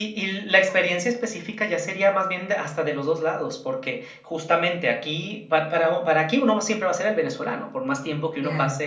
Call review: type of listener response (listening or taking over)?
listening